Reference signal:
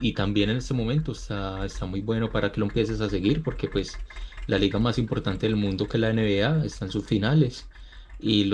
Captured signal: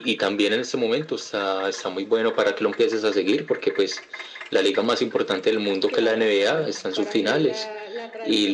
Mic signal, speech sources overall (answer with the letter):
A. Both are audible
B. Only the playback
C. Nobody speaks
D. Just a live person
A